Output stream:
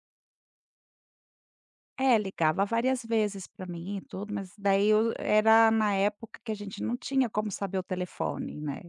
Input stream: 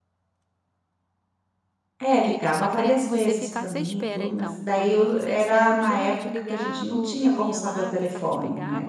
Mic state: both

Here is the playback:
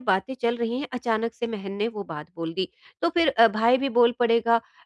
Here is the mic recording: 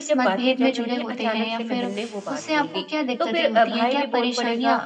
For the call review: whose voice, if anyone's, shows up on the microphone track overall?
both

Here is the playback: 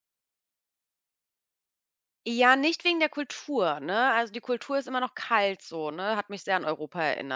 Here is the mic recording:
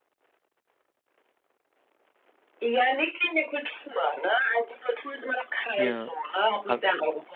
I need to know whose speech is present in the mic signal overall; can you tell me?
both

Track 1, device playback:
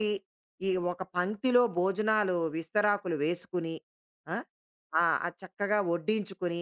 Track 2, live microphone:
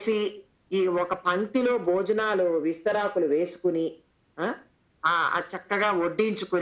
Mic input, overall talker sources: echo only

